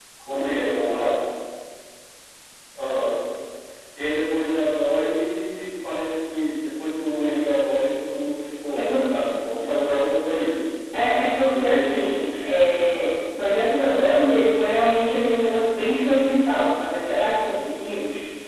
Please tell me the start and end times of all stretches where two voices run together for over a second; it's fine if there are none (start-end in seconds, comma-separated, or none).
11.5-13.1